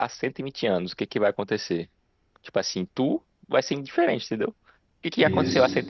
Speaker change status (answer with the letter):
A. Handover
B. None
B